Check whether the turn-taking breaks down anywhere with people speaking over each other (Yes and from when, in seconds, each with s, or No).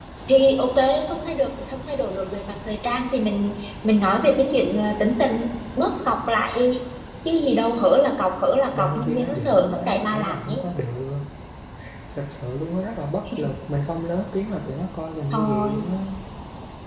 Yes, from 8.8 s